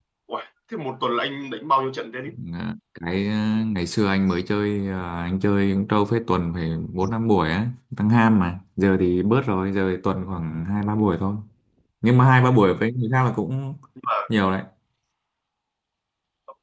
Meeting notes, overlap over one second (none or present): none